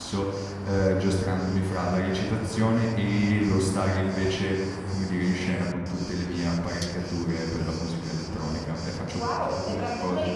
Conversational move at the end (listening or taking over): taking over